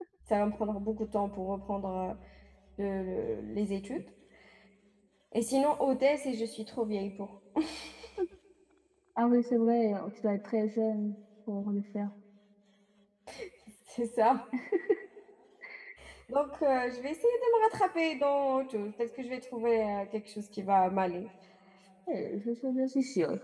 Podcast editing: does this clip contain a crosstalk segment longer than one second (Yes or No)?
No